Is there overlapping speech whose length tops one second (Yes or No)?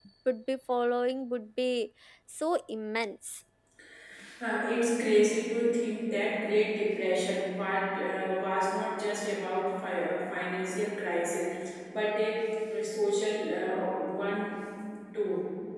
No